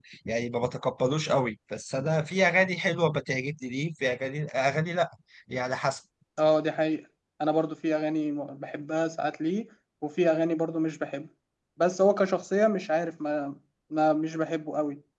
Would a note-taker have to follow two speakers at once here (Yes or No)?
No